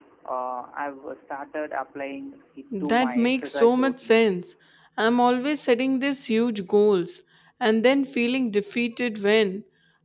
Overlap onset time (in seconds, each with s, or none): 2.7 s